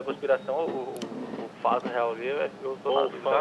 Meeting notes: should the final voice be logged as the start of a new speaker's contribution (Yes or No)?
Yes